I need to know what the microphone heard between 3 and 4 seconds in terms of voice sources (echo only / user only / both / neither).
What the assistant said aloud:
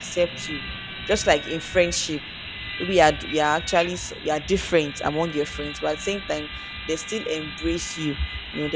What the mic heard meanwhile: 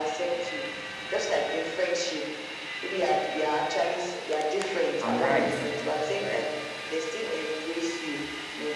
echo only